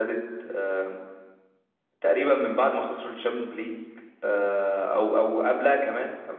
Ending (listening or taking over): listening